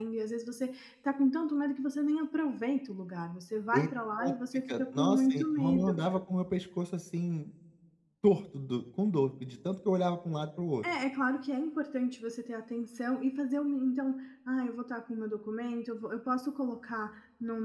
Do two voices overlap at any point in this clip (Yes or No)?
Yes